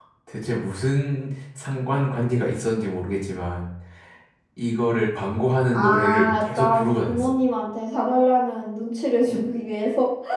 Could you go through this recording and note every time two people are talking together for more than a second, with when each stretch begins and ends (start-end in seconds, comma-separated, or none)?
5.7-7.3